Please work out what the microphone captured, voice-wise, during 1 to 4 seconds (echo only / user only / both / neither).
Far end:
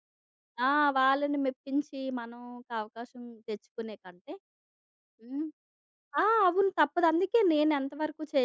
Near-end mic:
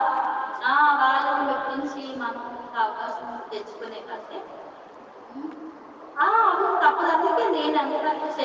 echo only